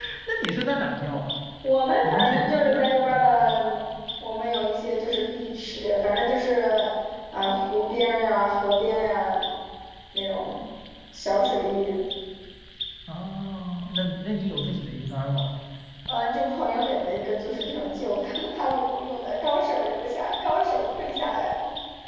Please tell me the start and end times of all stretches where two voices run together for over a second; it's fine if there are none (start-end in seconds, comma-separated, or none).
2.0-3.3